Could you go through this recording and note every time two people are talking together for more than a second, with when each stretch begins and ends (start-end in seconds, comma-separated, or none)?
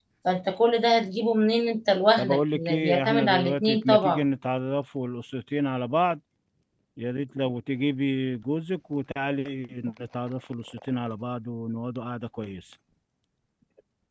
2.2-4.2